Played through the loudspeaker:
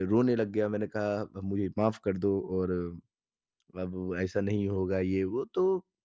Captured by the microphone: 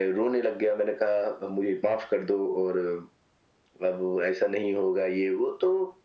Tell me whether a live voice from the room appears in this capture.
No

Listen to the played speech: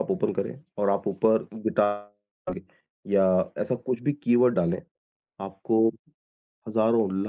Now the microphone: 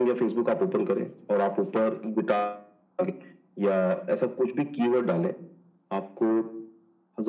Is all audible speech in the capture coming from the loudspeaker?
Yes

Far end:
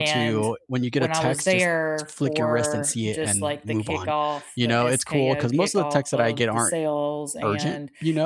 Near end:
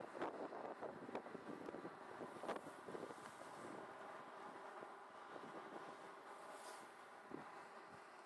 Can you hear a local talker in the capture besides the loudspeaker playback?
No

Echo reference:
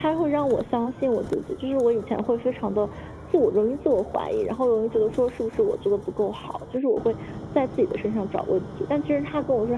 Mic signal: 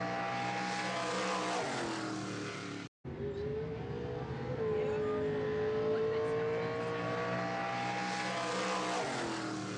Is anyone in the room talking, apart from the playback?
No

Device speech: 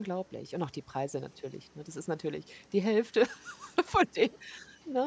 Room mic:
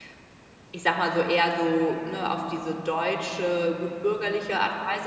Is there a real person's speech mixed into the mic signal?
Yes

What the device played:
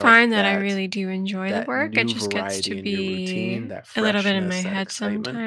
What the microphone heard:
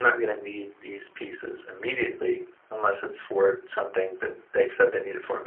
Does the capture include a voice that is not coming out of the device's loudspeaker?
Yes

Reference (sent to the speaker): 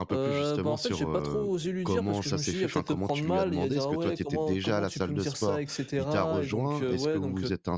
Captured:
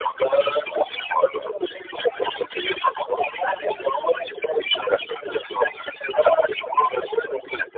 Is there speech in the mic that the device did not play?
No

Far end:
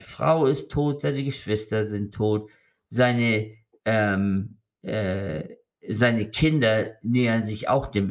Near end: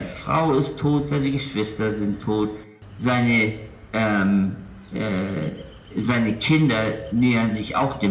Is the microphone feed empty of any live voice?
Yes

